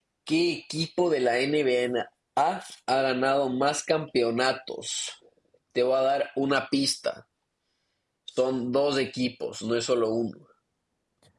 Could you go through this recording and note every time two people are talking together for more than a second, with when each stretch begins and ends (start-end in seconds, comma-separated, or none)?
none